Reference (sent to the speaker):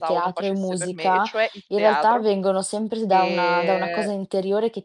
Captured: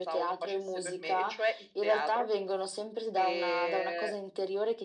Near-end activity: none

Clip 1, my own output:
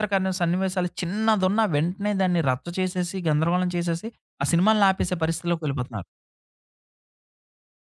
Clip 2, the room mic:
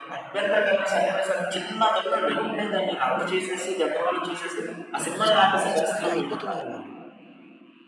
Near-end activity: present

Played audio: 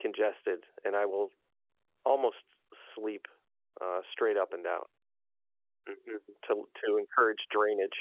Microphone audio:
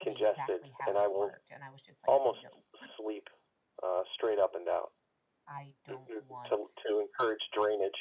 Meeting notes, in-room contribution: present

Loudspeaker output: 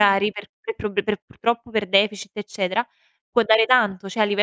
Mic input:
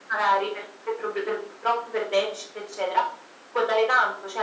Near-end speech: none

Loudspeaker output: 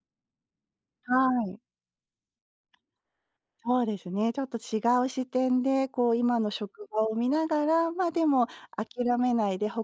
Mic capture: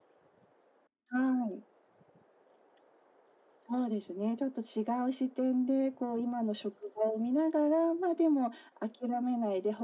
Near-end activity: none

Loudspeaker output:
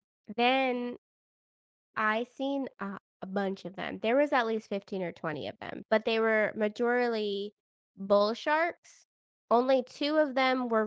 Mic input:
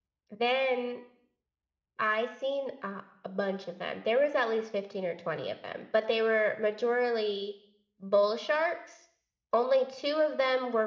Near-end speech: none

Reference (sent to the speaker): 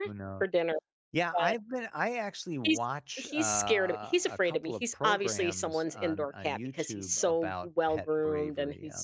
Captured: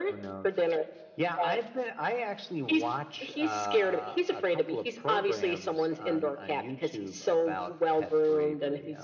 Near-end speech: none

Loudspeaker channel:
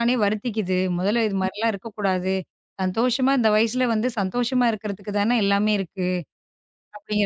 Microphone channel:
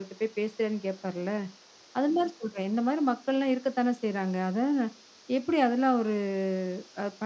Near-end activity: present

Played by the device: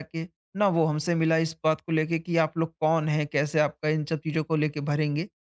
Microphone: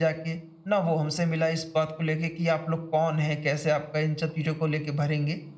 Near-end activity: none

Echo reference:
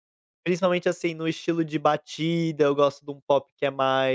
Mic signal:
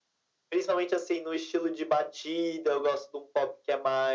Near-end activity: none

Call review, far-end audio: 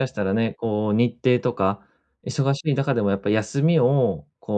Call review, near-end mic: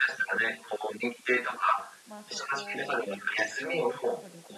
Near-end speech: present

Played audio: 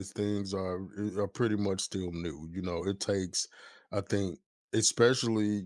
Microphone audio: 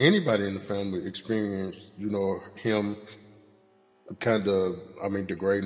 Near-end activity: present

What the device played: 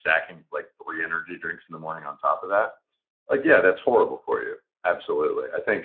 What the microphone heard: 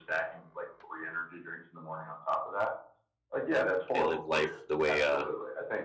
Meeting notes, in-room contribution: present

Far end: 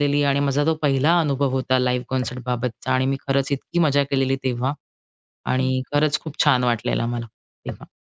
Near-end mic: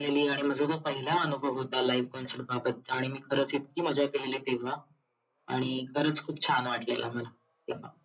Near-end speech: none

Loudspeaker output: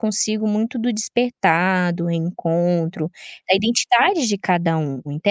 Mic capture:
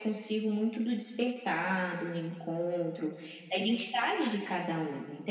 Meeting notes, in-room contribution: none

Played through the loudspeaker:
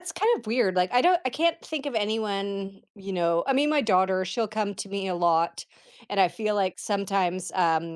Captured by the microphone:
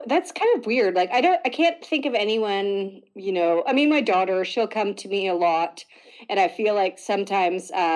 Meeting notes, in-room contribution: none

